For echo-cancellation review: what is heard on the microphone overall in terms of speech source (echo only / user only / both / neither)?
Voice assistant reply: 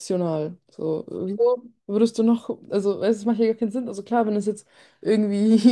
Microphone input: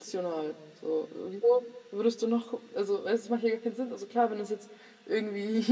echo only